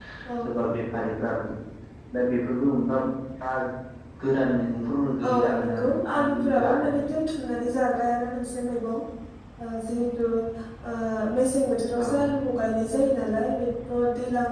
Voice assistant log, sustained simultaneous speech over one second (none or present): present